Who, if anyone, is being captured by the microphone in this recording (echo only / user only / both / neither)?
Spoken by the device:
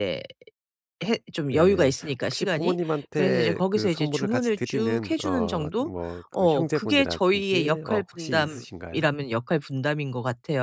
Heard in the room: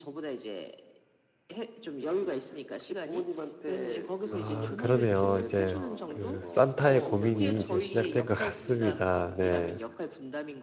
both